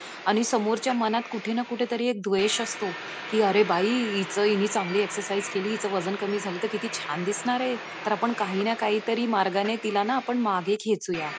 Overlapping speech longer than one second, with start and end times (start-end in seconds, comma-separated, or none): none